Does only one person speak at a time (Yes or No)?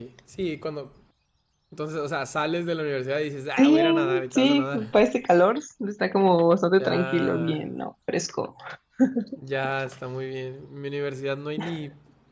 No